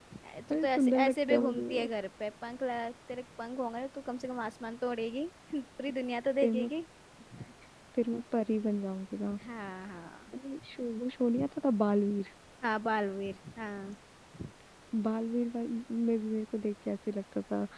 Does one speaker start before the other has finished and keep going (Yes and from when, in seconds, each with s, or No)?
Yes, from 0.5 s